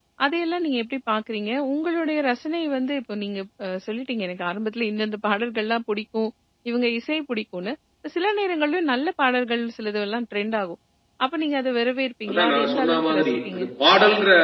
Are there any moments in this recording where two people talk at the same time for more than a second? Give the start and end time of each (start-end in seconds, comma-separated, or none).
12.3-13.6